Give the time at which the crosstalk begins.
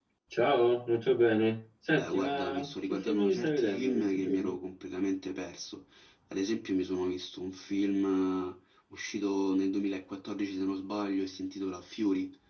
1.9 s

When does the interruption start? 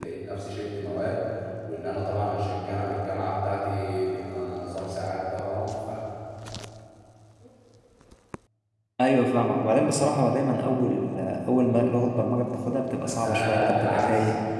13.0 s

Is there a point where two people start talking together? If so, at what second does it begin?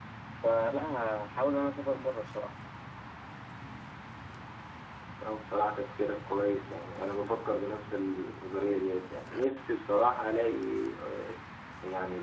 none

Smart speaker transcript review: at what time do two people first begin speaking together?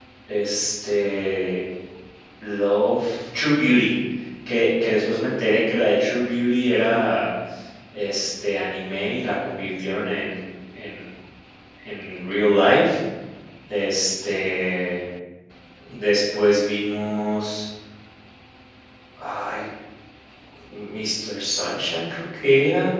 none

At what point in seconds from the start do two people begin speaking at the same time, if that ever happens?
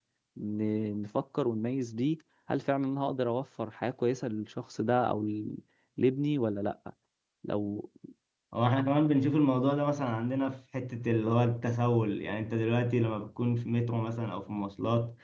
none

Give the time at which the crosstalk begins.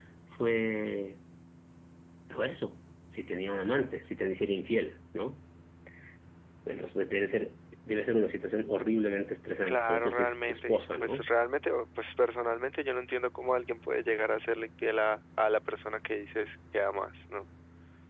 9.7 s

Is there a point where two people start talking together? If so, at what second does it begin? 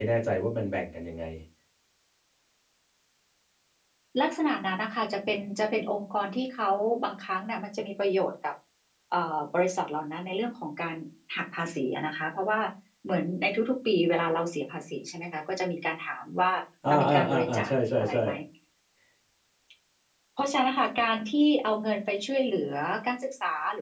16.9 s

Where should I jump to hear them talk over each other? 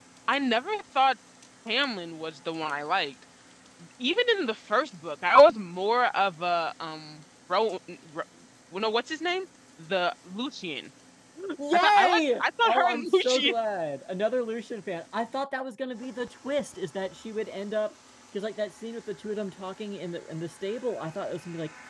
11.7 s

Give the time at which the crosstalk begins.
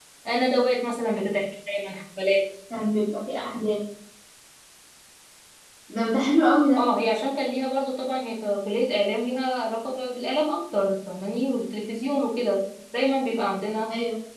none

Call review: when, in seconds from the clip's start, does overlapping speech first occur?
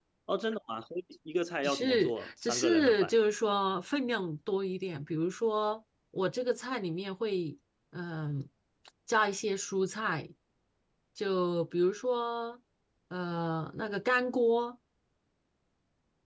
1.6 s

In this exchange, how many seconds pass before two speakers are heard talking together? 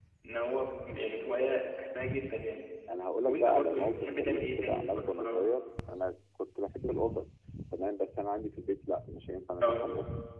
3.2 s

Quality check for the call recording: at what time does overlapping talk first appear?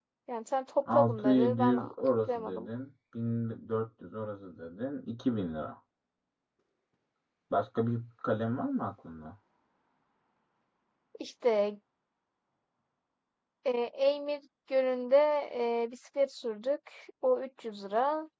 0.9 s

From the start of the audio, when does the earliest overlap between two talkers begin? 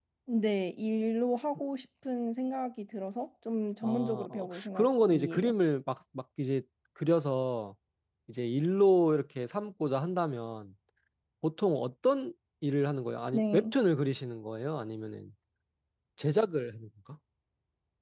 3.8 s

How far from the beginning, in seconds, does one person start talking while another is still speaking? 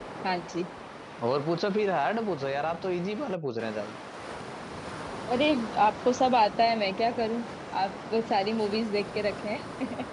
none

